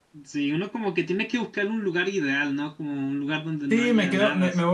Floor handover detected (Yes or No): Yes